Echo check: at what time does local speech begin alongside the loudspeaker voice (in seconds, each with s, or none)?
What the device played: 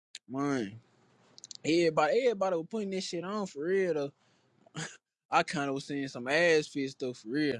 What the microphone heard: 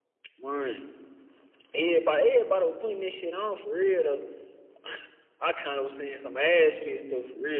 none